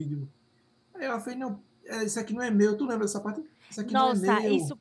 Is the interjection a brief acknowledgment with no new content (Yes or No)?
No